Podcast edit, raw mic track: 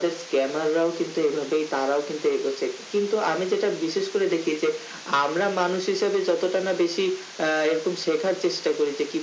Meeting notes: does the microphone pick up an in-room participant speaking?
No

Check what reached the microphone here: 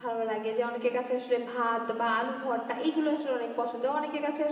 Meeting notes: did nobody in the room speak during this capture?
No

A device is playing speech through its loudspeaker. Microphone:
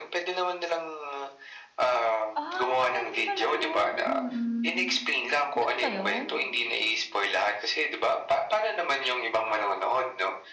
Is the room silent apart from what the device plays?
No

